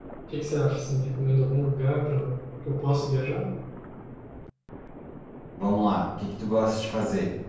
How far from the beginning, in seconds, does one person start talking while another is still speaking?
none

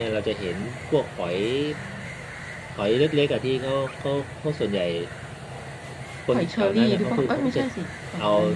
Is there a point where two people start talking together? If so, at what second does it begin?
6 s

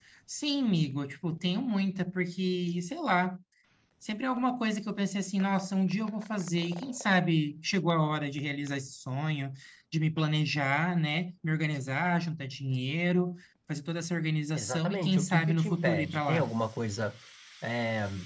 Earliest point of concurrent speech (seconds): 15 s

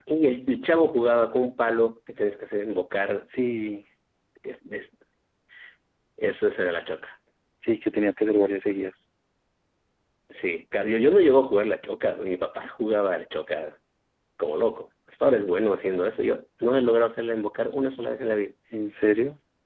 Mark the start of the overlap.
none

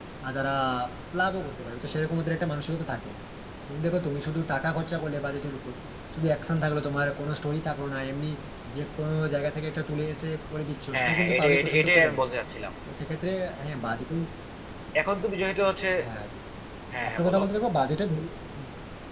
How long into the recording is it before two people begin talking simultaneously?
11 s

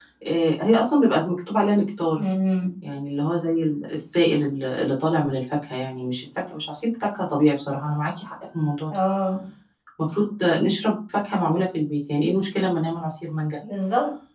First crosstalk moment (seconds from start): none

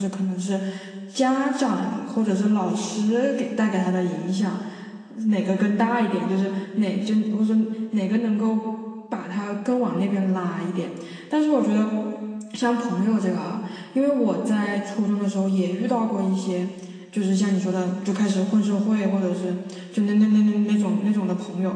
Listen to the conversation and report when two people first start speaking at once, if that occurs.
none

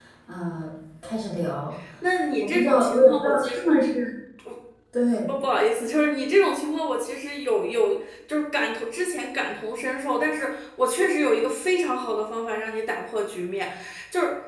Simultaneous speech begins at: 2 s

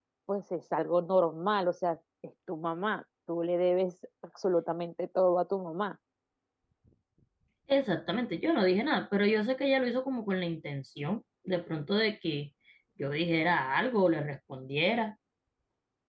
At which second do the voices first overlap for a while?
none

